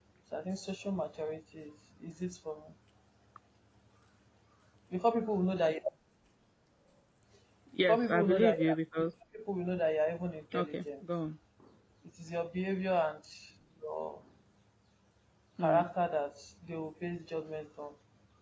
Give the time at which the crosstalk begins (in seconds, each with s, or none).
7.9 s